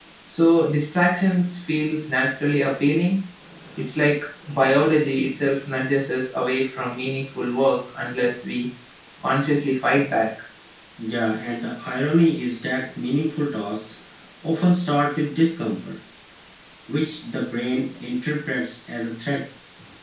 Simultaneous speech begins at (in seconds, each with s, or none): none